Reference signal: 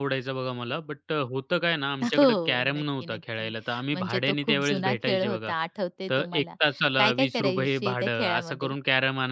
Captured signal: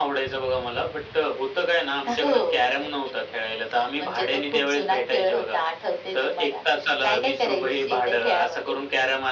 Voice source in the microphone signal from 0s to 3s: echo only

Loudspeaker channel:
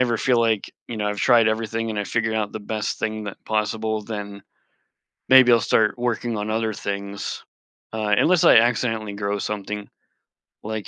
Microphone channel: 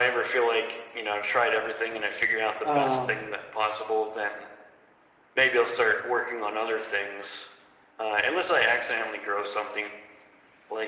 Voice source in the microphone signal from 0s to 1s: echo only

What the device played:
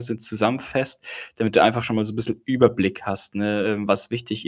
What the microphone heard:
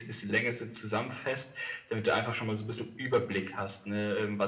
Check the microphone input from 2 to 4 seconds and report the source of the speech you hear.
echo only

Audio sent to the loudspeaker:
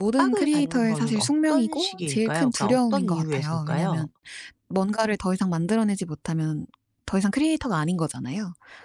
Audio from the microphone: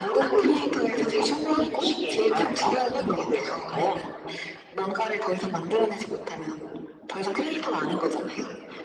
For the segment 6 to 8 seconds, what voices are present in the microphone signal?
echo only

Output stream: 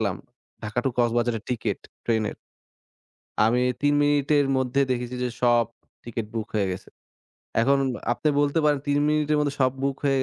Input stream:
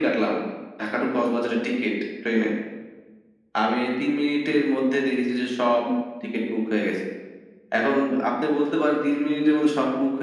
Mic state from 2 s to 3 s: echo only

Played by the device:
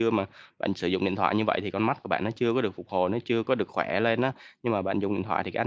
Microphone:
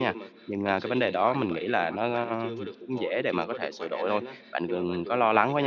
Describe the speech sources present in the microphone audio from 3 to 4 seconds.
both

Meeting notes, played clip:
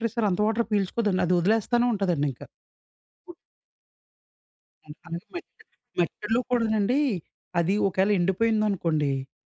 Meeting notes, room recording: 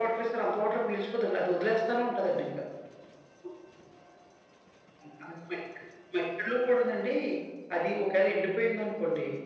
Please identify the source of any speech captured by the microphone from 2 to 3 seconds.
echo only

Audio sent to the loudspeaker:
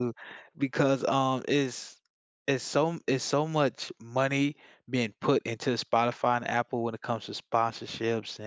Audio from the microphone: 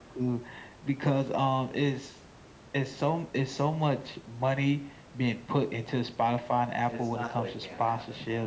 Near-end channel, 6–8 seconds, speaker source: both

